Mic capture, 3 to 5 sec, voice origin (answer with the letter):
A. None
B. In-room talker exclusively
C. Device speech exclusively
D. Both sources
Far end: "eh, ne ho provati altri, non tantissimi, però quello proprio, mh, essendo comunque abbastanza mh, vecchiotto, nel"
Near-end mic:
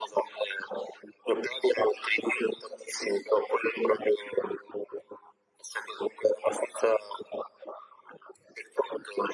C